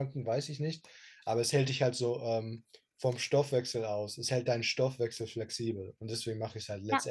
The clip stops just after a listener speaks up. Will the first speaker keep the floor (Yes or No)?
No